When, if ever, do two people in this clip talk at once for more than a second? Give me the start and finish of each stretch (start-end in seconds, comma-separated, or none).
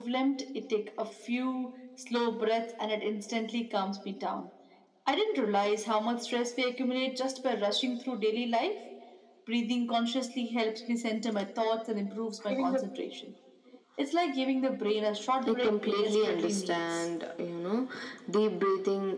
15.5-17.1